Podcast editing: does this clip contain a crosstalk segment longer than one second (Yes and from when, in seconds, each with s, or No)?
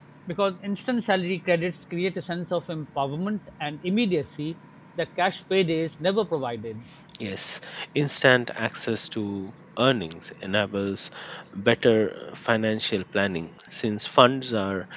No